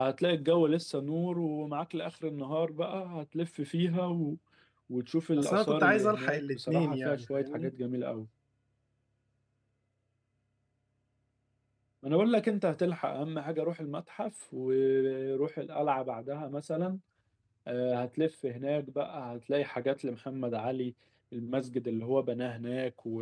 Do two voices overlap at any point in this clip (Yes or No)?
Yes